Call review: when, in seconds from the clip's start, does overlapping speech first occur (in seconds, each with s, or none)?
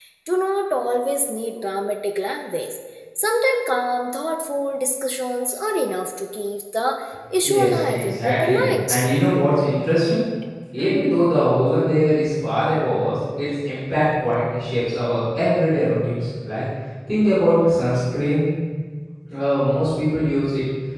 7.4 s